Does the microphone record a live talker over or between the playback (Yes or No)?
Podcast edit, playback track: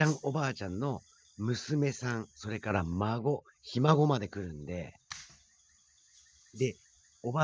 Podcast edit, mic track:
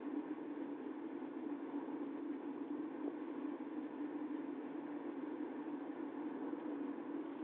No